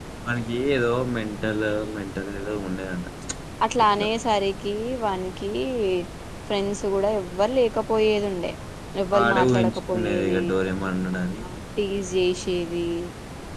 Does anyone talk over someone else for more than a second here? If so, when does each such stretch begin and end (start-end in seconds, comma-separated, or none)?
9.1-10.4